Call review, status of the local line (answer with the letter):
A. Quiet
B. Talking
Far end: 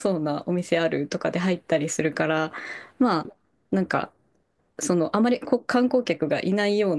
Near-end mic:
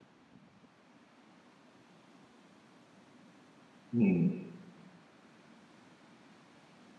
B